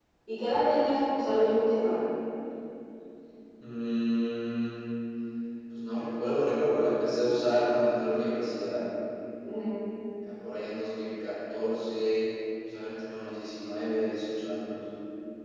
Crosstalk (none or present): none